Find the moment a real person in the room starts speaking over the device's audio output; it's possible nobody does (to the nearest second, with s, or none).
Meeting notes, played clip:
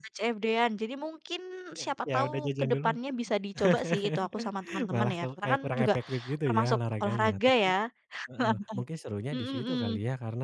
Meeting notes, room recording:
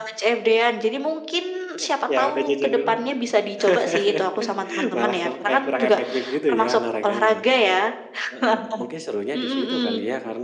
none